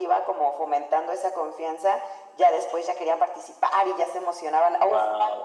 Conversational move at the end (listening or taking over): listening